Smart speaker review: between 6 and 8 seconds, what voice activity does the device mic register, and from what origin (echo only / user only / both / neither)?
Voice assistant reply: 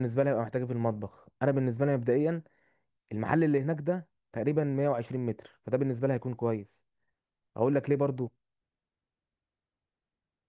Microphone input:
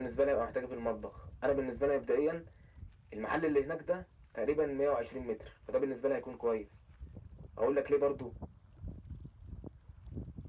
echo only